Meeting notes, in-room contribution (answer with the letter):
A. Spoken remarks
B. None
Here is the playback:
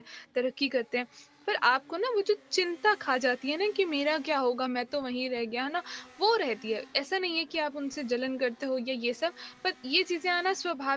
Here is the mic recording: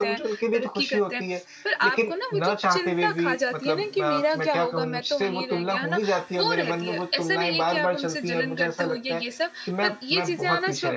A